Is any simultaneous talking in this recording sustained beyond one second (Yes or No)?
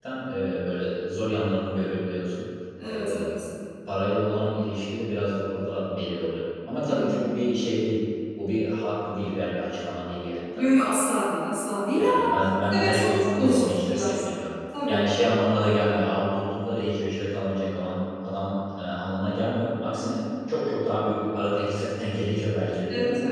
Yes